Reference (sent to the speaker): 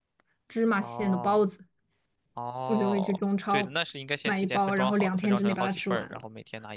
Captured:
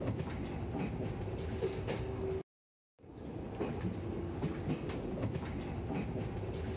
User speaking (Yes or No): No